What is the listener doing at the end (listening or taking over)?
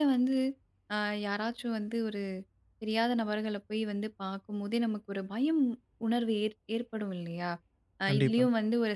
listening